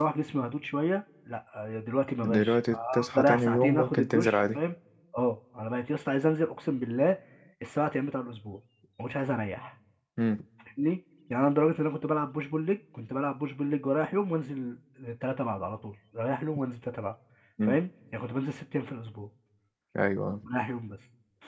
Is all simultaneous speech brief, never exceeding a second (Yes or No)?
No